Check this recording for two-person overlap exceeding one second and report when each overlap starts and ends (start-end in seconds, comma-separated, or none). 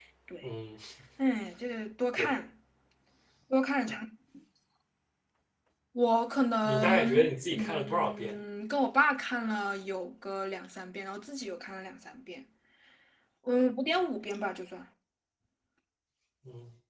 6.6-8.4